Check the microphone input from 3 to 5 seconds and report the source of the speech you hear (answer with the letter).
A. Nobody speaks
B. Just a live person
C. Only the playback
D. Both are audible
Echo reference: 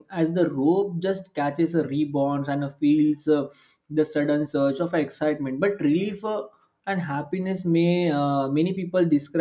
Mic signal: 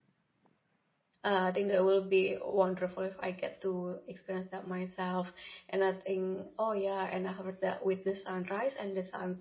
B